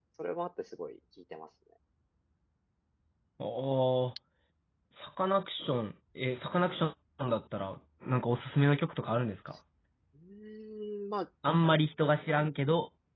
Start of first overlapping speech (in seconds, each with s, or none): none